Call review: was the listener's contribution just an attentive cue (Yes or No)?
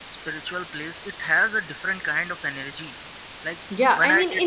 No